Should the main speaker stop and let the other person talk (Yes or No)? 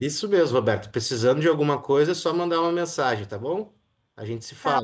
Yes